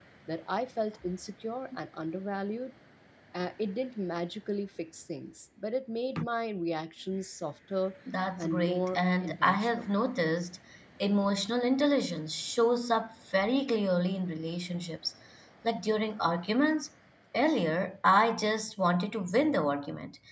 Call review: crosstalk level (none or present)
present